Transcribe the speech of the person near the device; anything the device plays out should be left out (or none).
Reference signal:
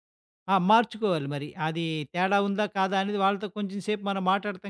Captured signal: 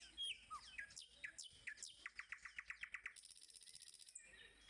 none